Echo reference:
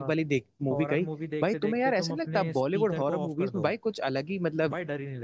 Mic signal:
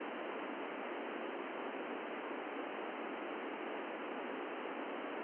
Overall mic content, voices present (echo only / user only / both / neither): neither